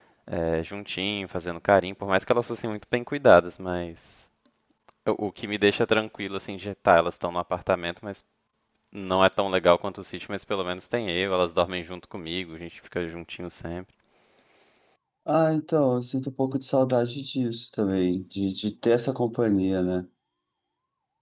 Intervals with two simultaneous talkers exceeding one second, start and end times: none

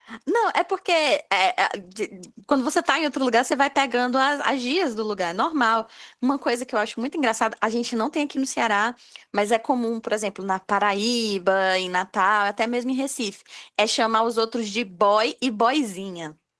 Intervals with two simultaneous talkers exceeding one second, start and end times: none

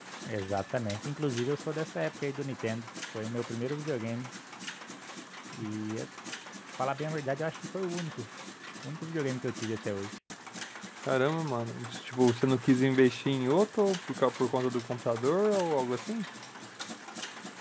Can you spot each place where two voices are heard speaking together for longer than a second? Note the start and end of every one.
none

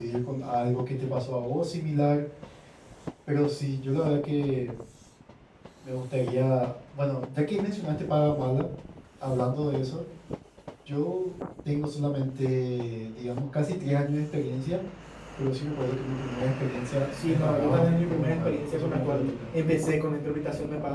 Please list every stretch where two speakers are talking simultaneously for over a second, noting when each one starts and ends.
17.2-19.3

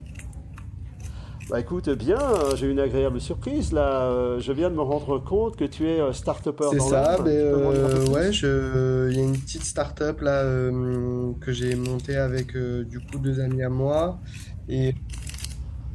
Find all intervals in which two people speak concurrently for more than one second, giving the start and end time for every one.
6.6-8.3

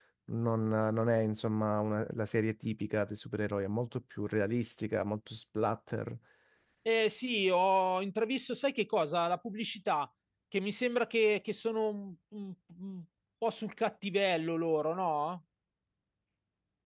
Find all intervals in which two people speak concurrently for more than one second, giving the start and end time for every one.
none

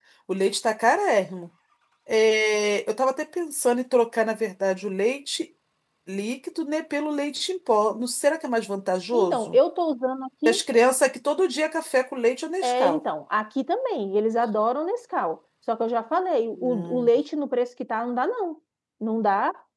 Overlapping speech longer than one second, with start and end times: none

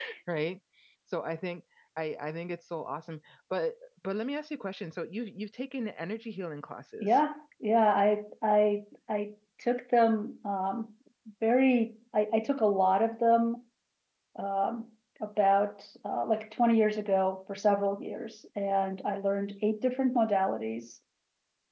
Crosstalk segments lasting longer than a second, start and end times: none

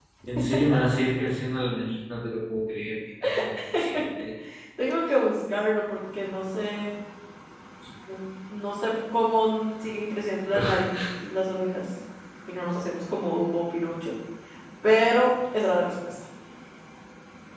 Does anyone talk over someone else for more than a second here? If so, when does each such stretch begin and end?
none

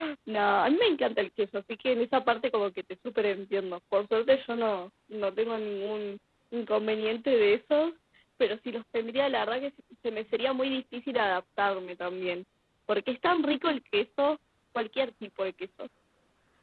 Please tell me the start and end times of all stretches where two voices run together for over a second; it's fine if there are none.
none

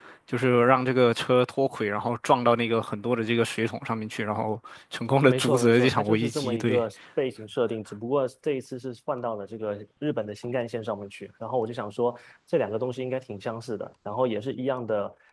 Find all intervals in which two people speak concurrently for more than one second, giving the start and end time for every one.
5.3-6.8

